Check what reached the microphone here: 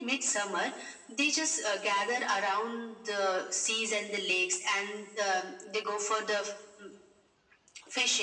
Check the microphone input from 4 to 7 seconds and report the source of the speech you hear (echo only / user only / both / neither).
echo only